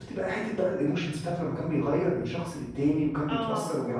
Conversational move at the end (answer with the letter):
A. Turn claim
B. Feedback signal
B